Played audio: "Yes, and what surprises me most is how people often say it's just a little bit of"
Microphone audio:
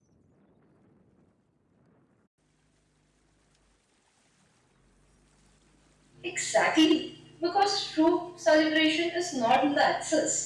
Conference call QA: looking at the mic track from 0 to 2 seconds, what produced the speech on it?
neither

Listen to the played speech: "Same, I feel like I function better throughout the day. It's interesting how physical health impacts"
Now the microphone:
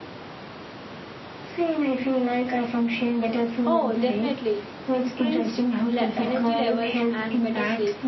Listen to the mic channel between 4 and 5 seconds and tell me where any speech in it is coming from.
both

